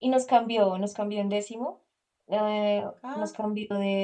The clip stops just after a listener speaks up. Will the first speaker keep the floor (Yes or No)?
Yes